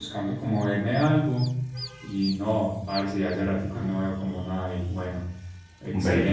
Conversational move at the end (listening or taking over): listening